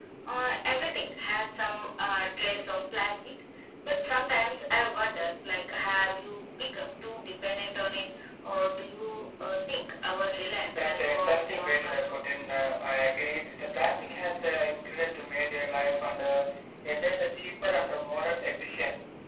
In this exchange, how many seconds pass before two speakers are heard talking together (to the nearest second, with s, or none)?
11 s